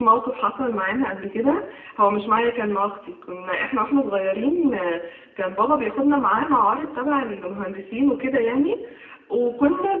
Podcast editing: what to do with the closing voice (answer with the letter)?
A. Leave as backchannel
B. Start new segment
A